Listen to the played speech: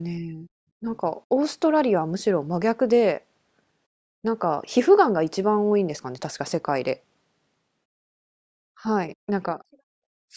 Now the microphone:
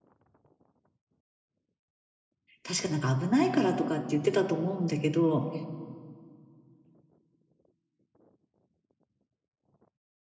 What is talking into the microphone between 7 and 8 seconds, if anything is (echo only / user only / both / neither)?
neither